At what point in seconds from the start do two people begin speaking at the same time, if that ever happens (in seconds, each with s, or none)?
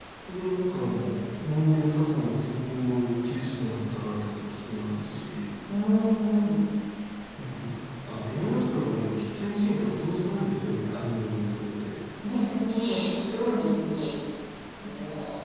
none